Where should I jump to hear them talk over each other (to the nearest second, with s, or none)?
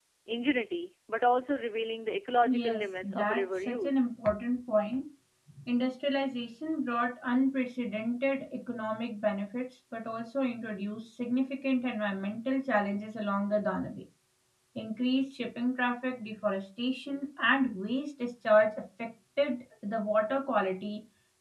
2 s